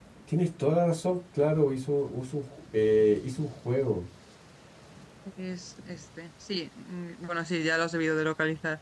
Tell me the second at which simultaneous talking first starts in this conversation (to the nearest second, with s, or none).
none